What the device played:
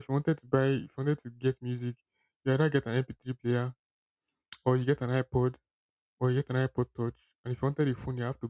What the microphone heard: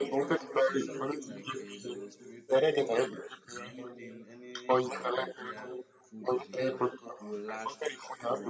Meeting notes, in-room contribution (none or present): present